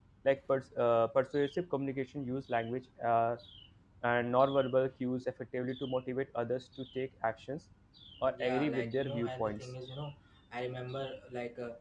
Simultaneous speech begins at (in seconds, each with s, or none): 8.3 s